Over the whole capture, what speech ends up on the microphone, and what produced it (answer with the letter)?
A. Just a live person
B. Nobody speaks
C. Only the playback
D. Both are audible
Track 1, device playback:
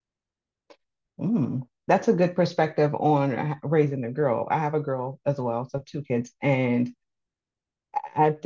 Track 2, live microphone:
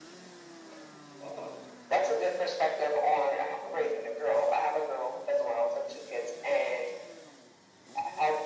C